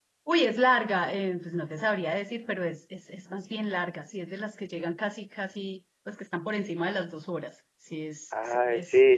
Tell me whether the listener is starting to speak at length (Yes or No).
Yes